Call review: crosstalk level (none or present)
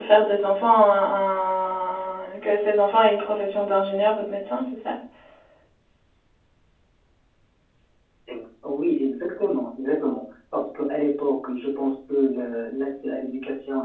none